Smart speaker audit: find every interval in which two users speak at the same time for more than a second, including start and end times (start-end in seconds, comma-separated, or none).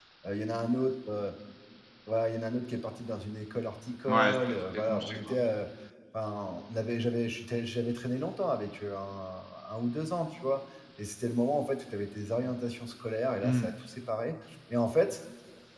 4.1-5.4